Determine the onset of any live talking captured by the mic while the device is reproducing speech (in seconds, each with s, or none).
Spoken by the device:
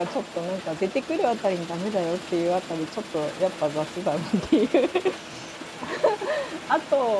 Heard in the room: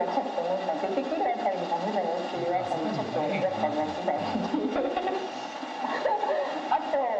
2.3 s